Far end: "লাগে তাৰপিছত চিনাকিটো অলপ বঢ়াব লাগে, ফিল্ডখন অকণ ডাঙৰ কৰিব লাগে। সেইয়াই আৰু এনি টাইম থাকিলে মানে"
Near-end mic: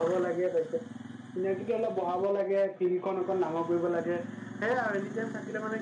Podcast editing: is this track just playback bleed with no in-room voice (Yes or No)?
Yes